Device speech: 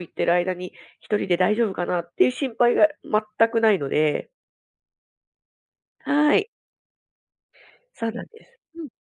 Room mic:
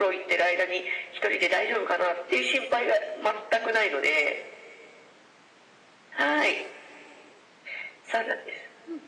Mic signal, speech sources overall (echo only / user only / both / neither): echo only